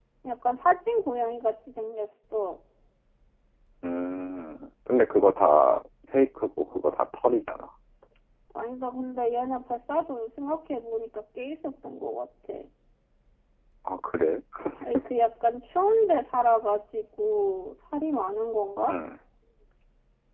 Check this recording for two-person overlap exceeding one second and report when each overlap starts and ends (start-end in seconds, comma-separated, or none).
none